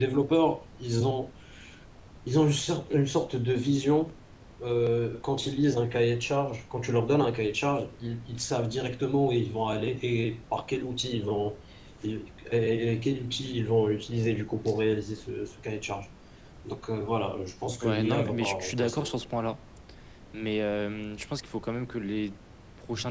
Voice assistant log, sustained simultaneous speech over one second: present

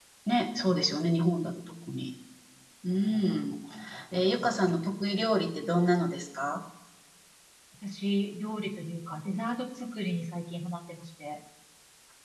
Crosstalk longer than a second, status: none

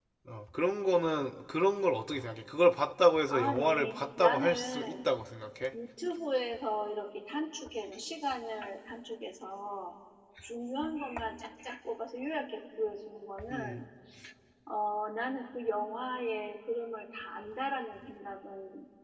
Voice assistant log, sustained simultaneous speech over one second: present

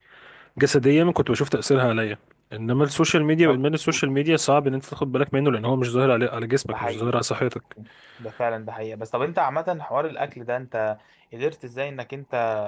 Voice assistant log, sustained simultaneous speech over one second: none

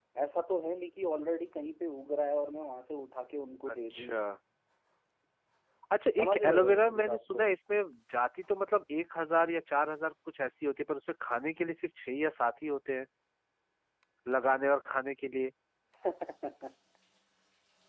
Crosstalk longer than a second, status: present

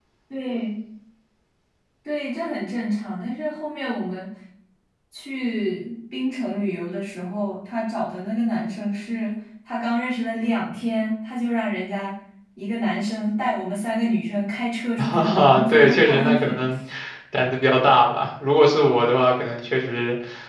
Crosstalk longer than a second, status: present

